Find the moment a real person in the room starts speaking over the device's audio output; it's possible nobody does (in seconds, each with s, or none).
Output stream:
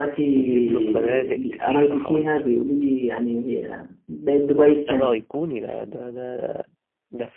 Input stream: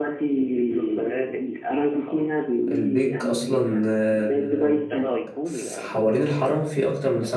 2.7 s